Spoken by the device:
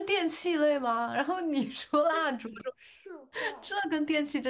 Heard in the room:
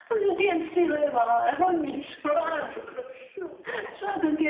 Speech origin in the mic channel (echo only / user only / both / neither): echo only